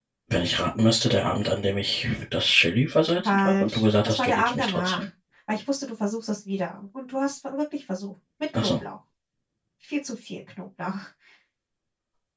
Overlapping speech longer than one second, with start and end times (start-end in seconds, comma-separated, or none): 3.2-5.1